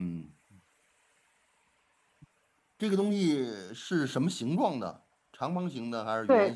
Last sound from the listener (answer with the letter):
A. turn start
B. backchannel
A